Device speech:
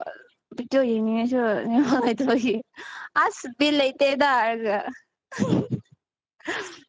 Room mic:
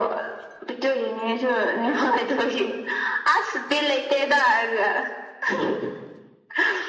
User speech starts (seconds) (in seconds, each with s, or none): none